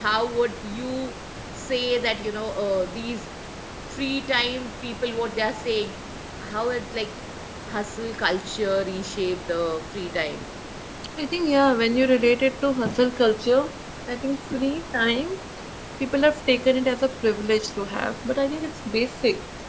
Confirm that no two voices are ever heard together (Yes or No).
Yes